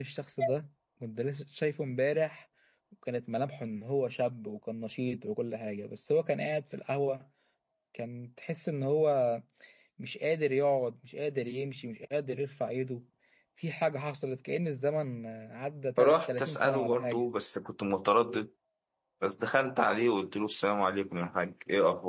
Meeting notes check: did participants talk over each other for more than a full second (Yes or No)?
Yes